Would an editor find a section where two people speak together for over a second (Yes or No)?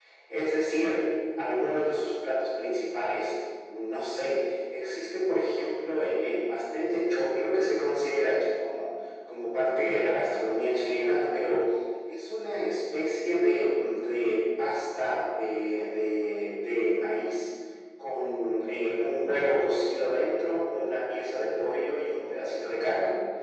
No